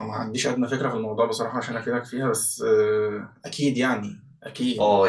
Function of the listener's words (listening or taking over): taking over